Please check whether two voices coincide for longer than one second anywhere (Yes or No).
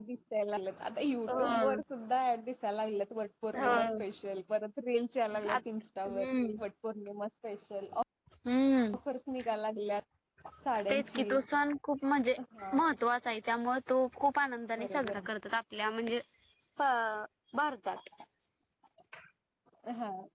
No